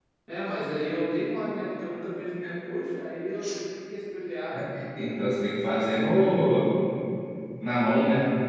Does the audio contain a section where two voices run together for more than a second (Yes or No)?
No